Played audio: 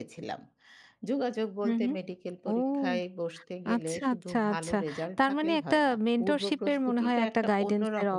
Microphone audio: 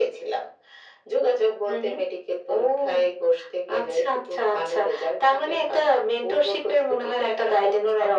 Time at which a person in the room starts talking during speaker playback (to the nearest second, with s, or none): none